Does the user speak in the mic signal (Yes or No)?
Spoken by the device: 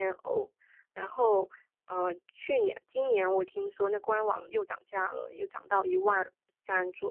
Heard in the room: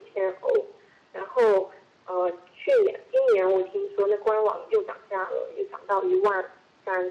No